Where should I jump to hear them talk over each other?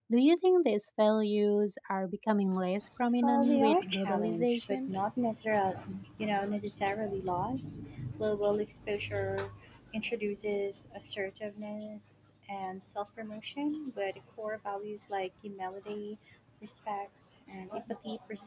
3.2 s

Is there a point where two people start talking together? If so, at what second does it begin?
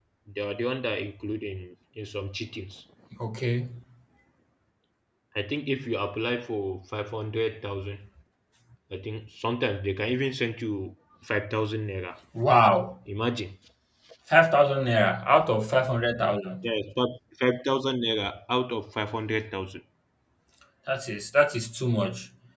none

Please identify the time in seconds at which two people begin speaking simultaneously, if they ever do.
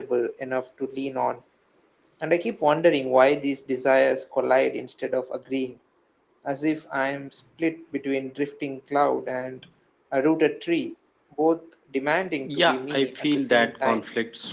12.4 s

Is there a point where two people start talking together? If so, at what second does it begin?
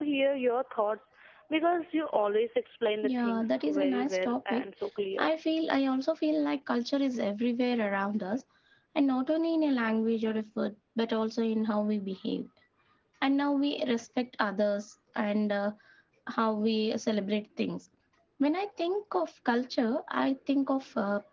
3.0 s

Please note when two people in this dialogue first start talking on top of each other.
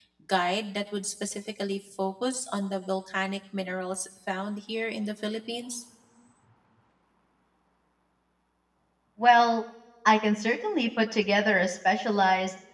none

